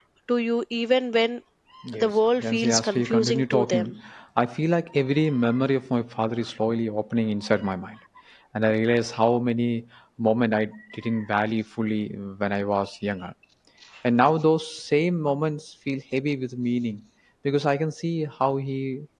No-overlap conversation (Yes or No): No